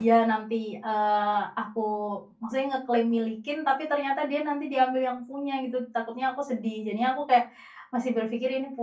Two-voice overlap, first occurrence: none

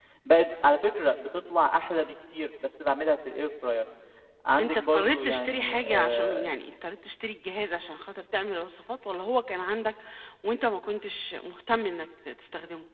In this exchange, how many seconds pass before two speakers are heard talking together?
5 s

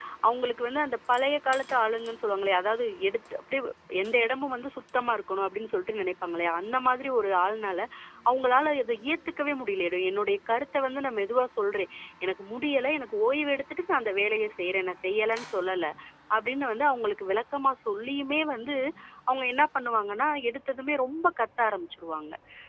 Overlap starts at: none

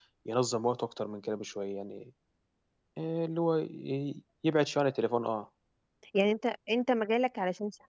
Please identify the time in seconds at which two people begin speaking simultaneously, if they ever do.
none

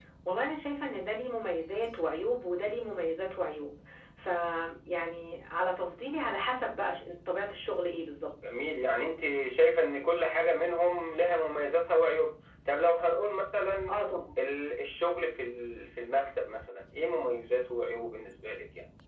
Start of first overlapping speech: none

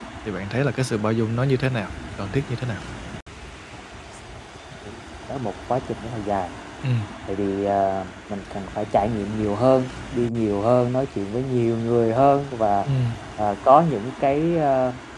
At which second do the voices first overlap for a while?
none

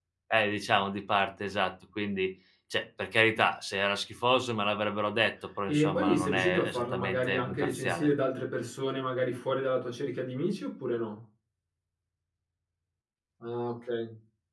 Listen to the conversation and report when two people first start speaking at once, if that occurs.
6 s

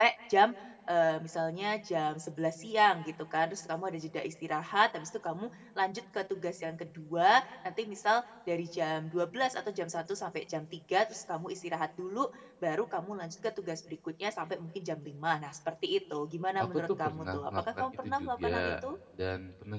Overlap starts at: 17 s

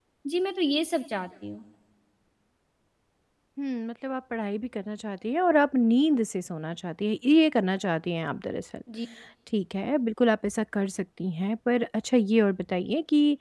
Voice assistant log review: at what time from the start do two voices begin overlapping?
none

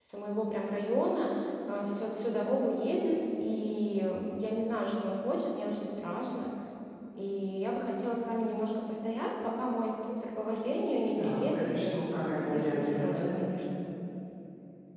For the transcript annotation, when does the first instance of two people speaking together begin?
11 s

